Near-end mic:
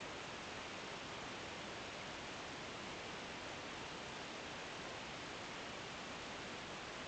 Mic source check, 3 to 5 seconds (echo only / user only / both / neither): neither